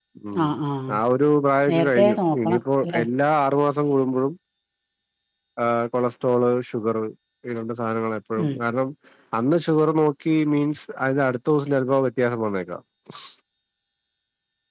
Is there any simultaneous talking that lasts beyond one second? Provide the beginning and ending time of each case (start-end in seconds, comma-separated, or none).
1.7-3.0